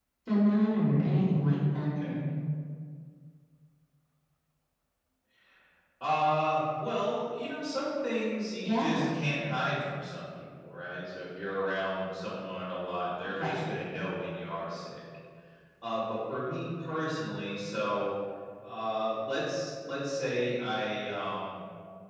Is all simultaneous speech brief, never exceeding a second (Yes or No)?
Yes